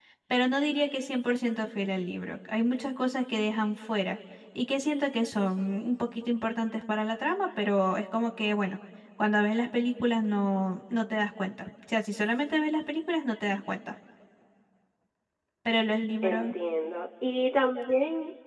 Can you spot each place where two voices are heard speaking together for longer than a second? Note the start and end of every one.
none

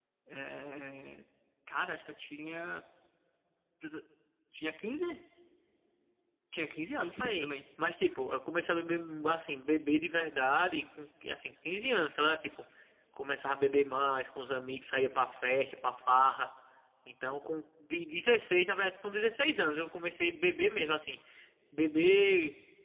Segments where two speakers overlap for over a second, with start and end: none

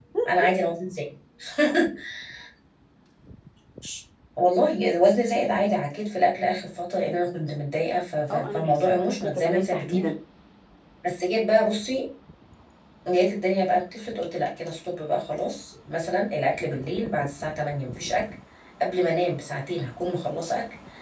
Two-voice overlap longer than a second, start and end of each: 8.3-10.1

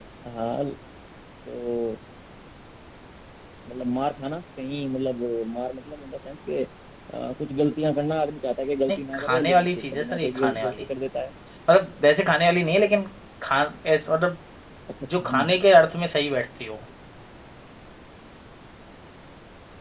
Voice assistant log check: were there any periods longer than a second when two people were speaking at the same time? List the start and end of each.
8.9-10.8

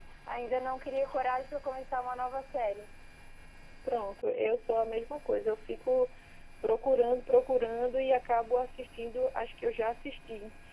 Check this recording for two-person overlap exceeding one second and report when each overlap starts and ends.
none

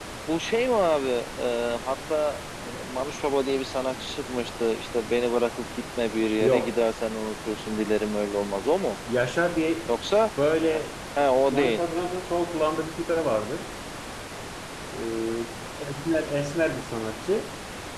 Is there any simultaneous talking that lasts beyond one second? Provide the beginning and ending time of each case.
none

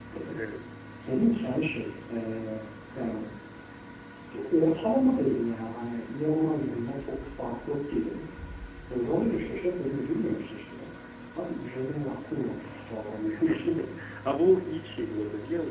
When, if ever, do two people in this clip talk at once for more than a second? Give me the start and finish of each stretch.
none

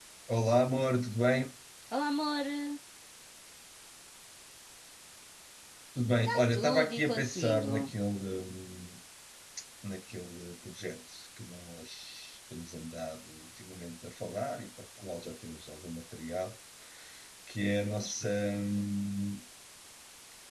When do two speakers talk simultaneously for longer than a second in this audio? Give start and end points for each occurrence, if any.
6.5-7.7

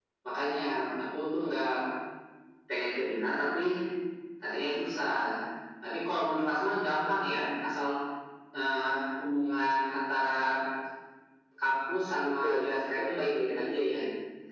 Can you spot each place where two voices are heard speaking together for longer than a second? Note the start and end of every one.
12.2-14.0

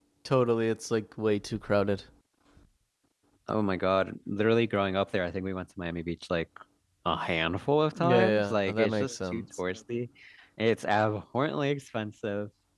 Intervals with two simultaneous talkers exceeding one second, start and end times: 8.0-9.4

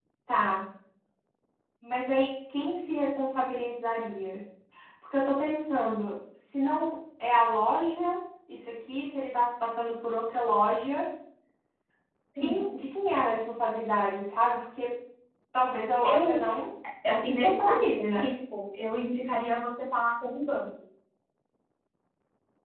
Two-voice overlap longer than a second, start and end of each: 17.1-18.3

